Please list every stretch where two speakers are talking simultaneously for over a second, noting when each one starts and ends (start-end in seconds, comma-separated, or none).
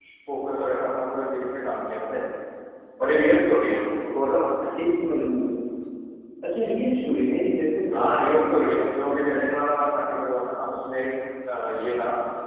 none